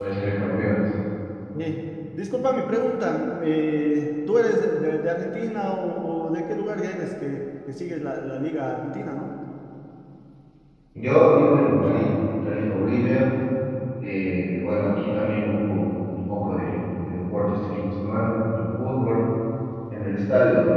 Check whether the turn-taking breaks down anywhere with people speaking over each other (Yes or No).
No